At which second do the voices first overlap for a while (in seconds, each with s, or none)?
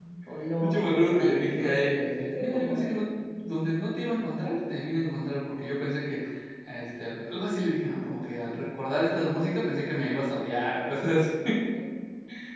0.6 s